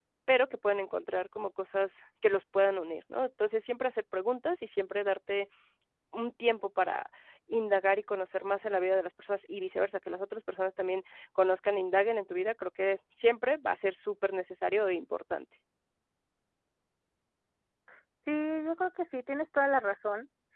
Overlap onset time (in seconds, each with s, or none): none